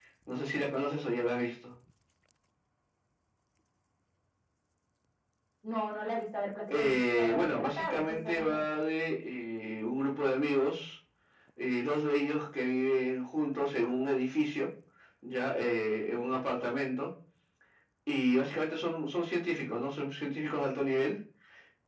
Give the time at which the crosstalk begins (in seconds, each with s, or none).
6.7 s